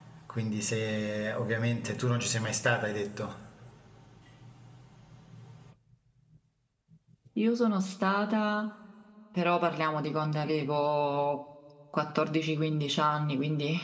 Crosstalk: none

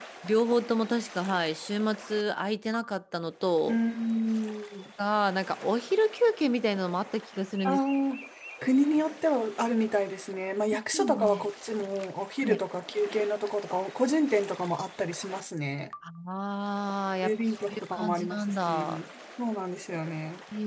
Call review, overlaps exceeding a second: present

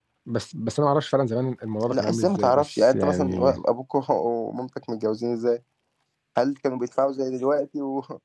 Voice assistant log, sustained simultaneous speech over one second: present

